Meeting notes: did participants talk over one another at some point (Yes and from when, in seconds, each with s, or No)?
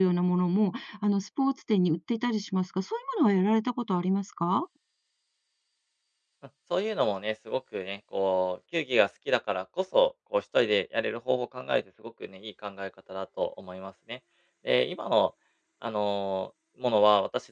No